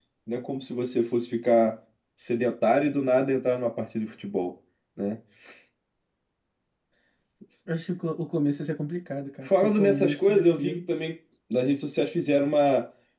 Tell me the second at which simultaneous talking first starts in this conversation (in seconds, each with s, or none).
9.4 s